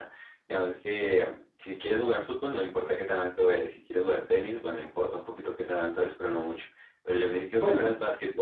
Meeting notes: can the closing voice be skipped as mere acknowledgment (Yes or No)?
Yes